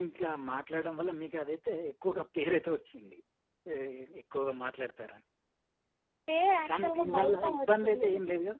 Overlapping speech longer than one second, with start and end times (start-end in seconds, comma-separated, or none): 6.7-8.1